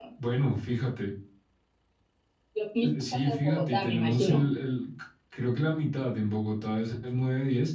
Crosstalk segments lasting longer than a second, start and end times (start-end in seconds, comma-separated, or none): 3.1-4.4